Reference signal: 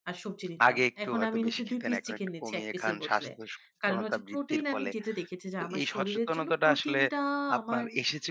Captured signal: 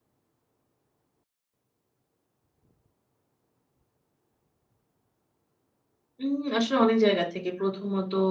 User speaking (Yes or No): Yes